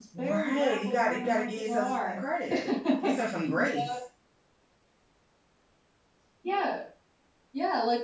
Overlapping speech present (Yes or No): Yes